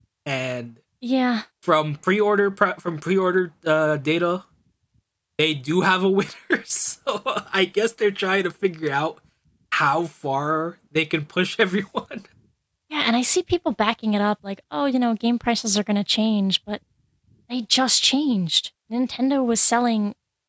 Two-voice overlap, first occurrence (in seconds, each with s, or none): none